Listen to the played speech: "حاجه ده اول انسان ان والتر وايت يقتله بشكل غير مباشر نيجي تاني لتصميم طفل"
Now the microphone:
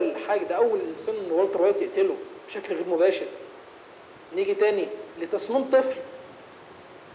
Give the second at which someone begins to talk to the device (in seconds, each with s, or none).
none